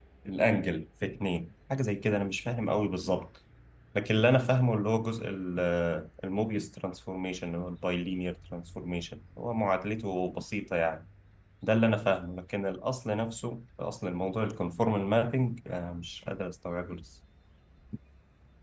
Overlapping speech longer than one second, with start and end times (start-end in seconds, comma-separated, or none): none